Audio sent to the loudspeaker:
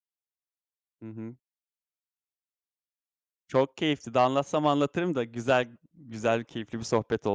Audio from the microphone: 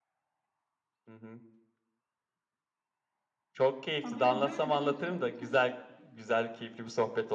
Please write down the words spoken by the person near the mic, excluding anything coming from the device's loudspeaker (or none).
Ha, böyle böyle bir tutku.